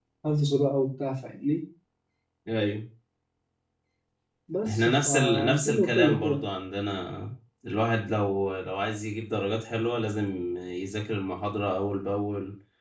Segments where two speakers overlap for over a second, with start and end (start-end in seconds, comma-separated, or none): 4.7-6.4